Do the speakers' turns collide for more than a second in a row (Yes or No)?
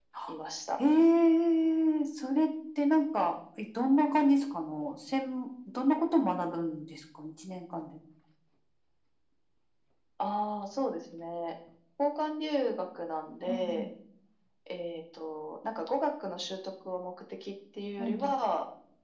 No